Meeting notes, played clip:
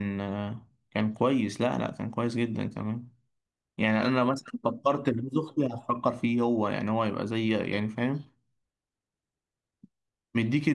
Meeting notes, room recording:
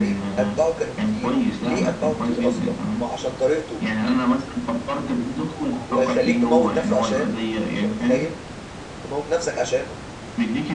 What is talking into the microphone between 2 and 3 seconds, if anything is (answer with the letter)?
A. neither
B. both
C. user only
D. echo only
B